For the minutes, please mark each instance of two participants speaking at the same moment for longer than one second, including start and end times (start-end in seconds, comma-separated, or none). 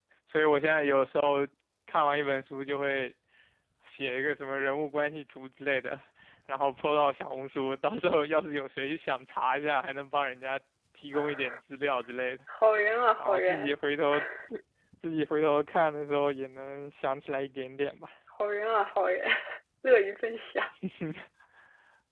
none